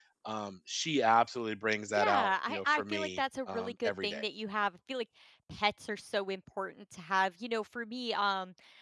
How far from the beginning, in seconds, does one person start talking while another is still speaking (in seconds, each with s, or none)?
2.0 s